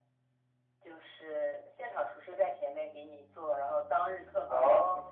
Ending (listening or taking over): listening